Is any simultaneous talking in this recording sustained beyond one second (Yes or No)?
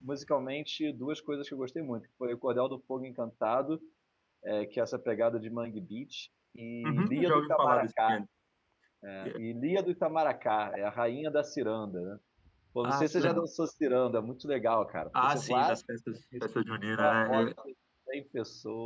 Yes